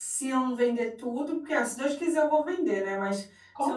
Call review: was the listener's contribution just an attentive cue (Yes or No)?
Yes